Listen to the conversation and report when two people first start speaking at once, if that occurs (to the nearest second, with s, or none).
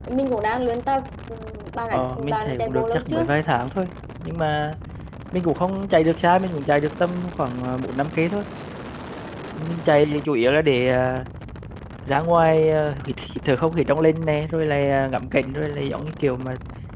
2 s